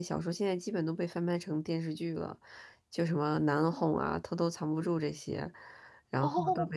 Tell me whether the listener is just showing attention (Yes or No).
Yes